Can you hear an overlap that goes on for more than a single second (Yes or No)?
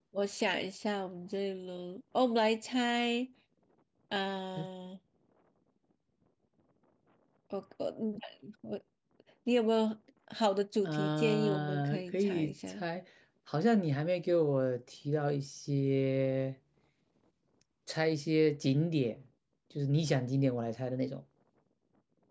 Yes